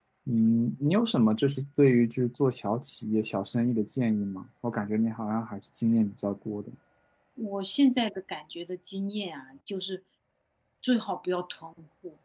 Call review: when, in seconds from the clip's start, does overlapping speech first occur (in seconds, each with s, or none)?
none